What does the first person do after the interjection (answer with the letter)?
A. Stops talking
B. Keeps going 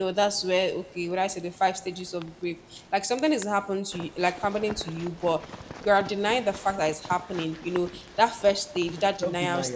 B